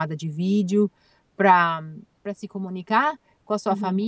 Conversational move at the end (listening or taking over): listening